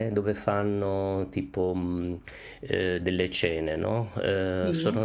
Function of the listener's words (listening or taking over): listening